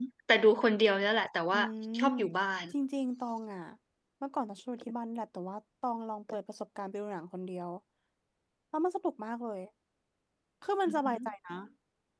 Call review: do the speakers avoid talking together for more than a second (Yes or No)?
Yes